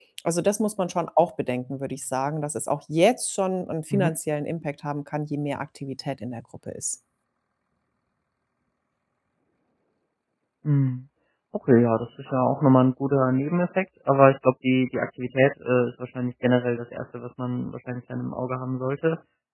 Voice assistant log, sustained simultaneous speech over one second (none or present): none